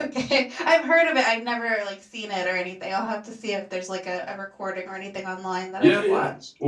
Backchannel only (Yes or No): No